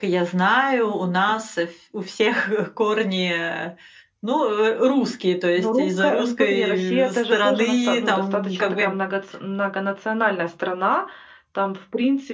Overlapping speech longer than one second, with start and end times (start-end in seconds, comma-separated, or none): 5.5-8.9